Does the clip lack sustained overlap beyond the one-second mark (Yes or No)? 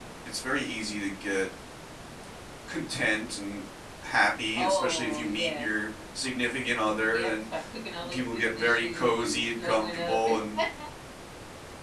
No